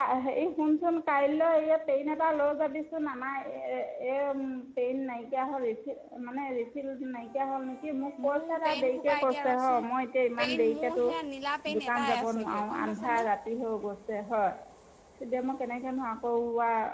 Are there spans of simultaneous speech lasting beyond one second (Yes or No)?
Yes